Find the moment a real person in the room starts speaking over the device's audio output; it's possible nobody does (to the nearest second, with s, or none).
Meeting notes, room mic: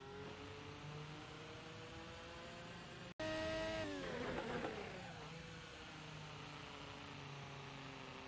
none